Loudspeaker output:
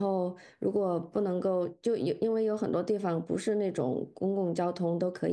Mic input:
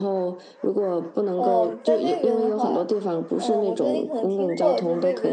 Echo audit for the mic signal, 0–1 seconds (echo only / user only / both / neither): echo only